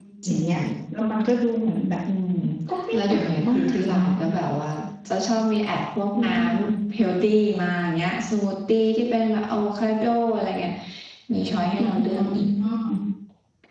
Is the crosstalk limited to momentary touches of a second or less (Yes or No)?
No